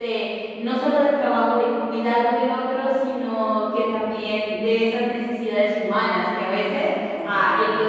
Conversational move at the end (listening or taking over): listening